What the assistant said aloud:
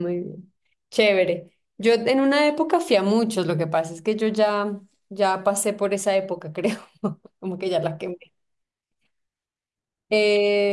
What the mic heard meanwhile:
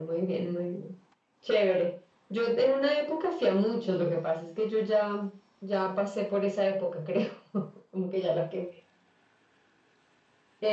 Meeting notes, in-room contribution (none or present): none